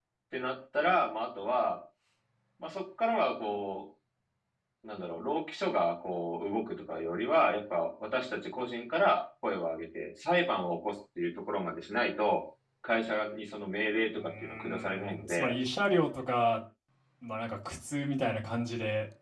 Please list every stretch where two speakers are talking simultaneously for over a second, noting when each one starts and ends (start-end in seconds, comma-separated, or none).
14.2-15.5